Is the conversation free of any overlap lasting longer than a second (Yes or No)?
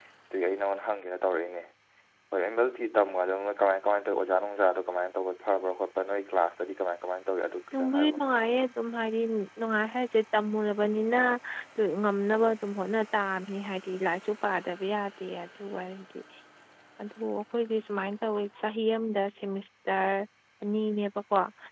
Yes